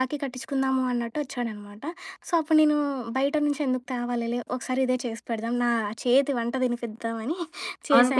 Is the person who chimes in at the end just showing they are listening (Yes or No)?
No